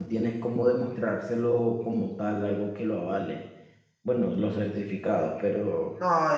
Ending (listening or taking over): taking over